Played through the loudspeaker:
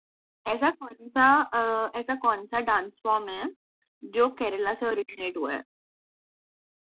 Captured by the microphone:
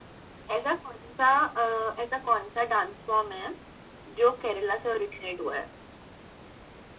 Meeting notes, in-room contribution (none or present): none